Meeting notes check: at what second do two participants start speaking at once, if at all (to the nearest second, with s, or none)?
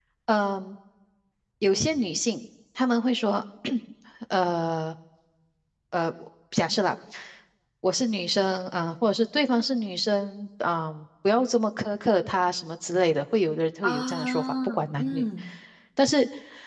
14 s